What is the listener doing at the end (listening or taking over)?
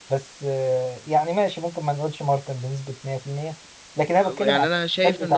taking over